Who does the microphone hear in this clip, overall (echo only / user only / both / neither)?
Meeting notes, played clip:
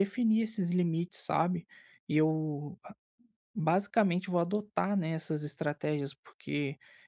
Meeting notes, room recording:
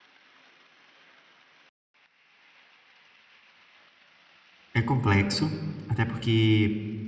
user only